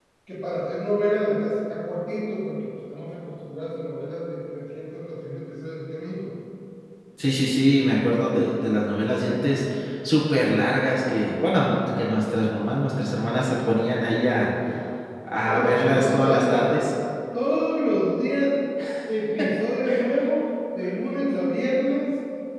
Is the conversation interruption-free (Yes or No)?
No